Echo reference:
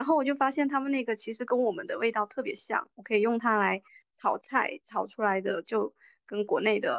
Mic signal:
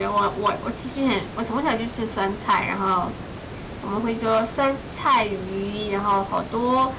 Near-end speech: present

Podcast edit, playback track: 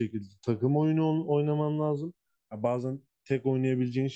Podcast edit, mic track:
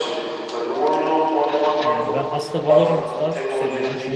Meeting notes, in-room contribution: present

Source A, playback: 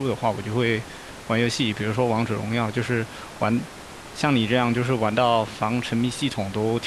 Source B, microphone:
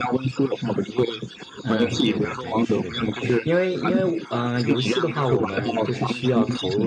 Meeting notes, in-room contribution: present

